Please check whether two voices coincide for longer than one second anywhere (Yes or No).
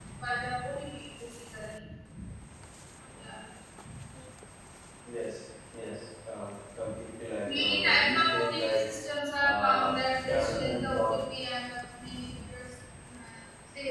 Yes